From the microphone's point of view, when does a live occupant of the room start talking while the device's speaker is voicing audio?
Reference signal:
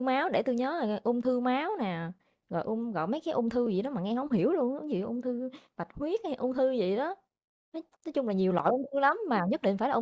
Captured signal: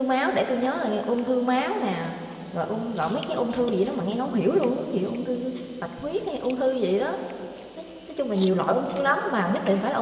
none

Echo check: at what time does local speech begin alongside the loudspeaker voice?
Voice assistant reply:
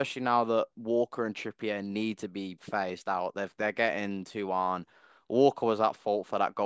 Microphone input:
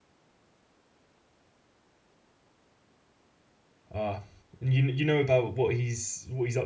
3.9 s

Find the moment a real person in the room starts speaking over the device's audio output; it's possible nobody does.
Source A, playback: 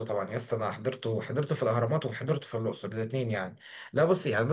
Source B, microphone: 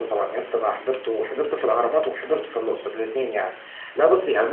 none

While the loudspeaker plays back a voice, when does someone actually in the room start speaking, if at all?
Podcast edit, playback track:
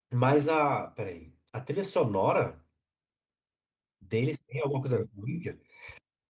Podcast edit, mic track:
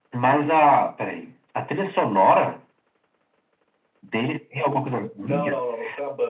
5.2 s

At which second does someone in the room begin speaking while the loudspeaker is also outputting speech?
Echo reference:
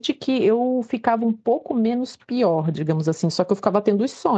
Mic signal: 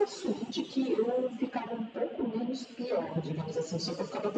none

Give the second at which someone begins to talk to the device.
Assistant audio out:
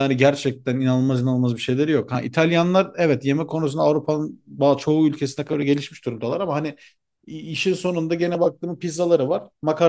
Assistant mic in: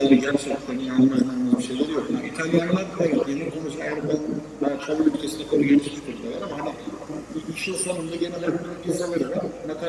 none

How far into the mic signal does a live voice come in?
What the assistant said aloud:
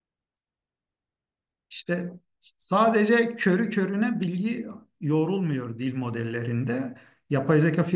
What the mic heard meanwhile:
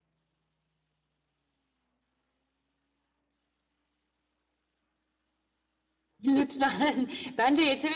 6.2 s

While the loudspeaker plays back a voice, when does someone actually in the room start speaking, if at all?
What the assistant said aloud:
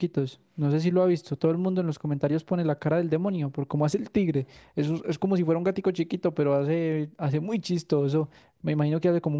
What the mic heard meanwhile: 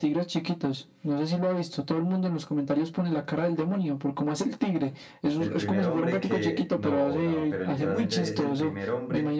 5.4 s

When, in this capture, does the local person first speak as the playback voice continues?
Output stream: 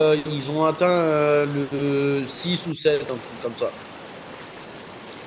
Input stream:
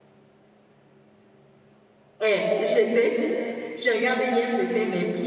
2.2 s

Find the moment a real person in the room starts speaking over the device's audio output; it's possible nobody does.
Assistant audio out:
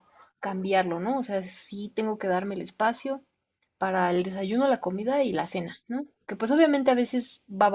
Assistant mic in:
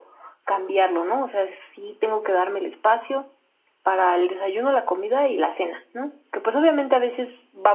none

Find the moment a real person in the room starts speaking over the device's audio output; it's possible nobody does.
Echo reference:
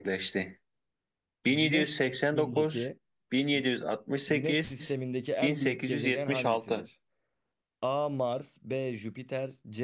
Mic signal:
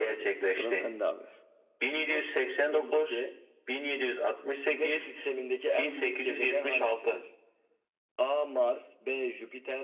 0.4 s

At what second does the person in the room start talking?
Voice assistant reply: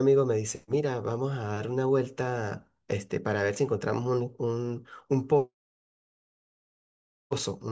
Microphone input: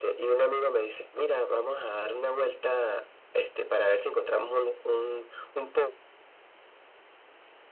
none

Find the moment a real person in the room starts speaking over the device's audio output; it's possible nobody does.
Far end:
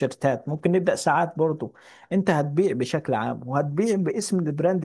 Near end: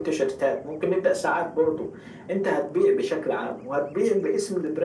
none

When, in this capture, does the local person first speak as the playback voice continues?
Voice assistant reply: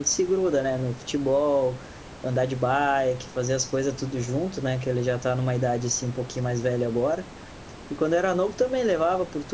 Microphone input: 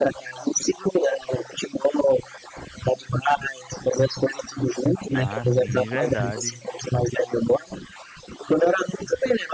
5.1 s

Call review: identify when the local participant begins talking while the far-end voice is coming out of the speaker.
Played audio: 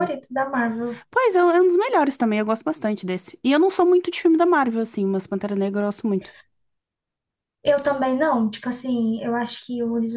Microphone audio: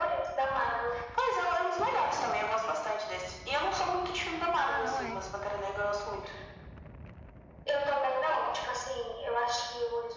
4.5 s

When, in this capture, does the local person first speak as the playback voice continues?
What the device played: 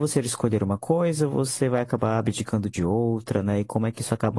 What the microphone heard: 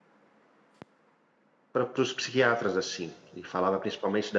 1.7 s

